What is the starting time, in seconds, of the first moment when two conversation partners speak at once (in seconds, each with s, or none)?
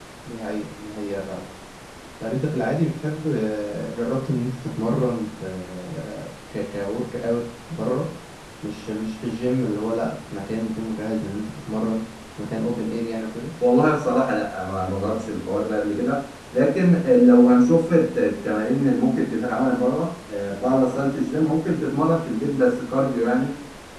none